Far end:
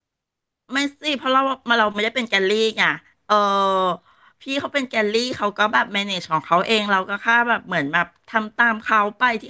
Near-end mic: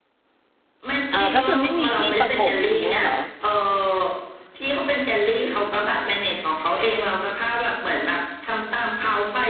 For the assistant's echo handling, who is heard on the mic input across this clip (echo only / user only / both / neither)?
both